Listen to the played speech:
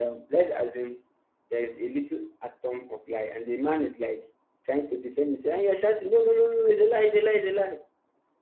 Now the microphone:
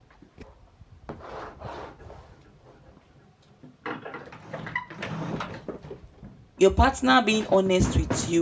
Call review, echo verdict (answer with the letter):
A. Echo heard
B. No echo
B